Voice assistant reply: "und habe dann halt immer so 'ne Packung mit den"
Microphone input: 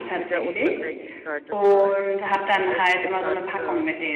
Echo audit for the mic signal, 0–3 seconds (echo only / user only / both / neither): both